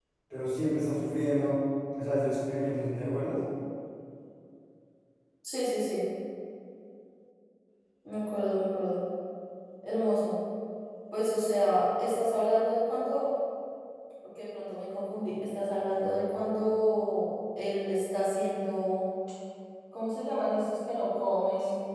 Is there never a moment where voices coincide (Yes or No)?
Yes